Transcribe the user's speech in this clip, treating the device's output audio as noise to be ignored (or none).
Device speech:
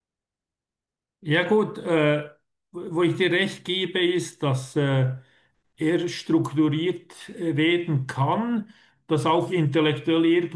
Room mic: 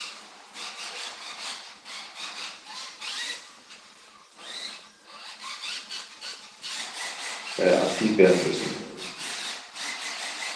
äh, aktiv werden müssen